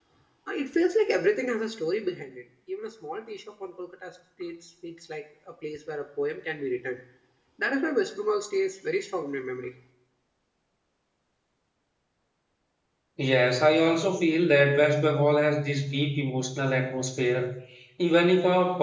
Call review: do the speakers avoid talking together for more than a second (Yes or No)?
Yes